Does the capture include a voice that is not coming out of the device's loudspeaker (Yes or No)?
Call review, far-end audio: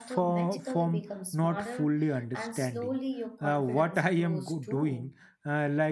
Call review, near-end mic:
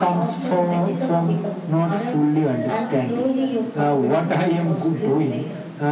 Yes